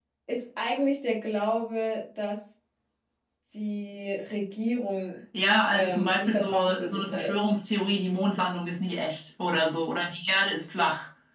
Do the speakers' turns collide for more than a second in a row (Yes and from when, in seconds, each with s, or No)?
Yes, from 5.7 s